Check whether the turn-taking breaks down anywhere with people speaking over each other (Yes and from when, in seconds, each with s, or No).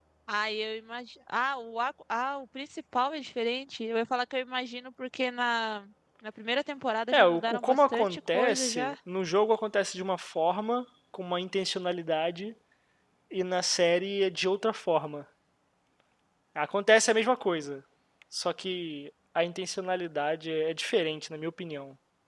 Yes, from 7.1 s